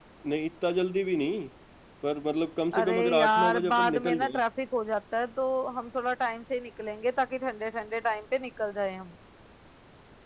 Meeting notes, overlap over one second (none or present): present